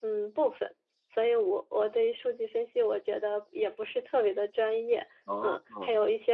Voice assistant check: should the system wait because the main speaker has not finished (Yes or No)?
Yes